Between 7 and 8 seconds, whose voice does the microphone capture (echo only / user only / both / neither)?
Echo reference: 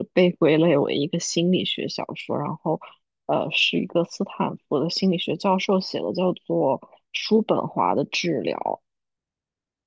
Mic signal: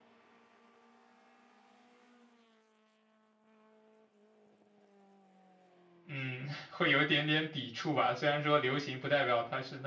user only